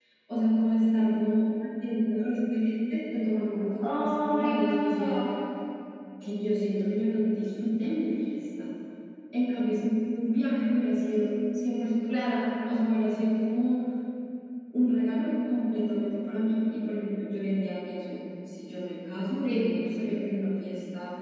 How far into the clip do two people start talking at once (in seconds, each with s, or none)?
3.8 s